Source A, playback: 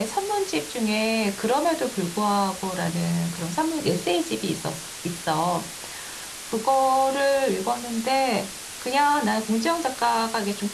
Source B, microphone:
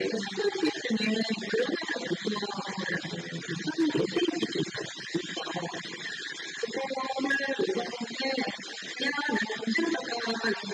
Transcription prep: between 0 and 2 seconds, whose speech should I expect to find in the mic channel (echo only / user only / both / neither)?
echo only